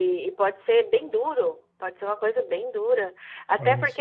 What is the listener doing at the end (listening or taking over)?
listening